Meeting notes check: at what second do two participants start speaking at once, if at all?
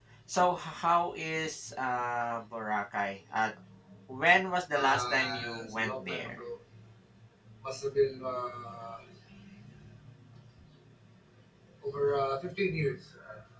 5 s

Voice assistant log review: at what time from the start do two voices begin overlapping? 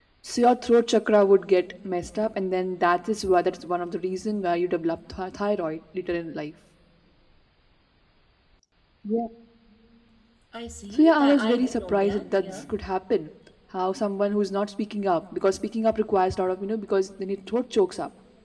11 s

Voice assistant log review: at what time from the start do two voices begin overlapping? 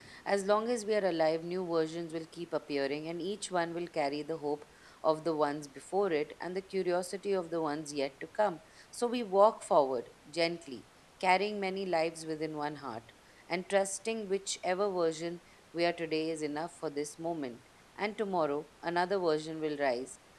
none

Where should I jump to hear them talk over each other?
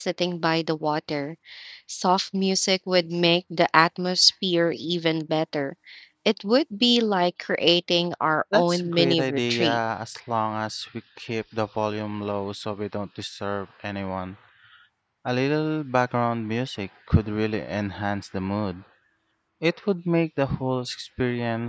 9 s

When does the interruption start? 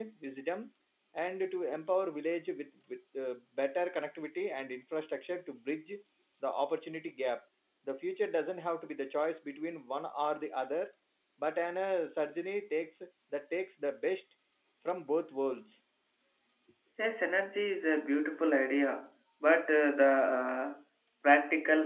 none

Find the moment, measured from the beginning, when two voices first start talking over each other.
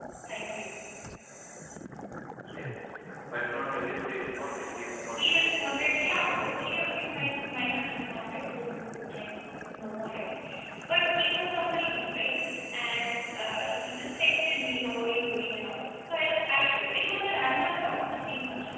5 s

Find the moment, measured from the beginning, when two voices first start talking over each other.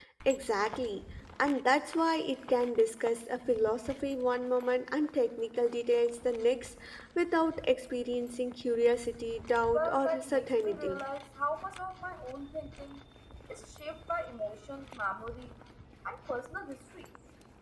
10 s

